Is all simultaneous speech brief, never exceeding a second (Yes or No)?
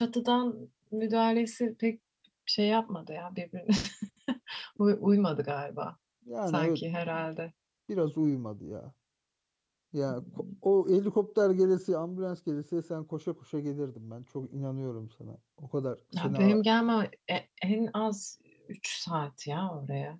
Yes